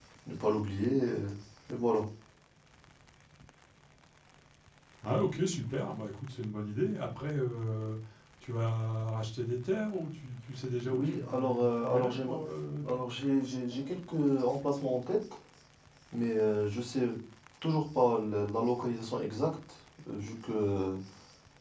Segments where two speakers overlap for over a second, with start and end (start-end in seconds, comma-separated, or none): 10.8-12.4